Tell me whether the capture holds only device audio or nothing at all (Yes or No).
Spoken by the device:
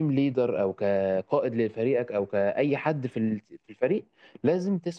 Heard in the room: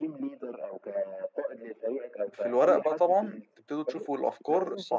No